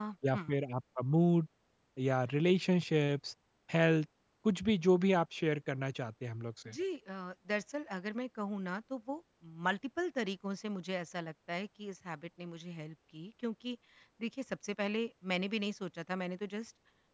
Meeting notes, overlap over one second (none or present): none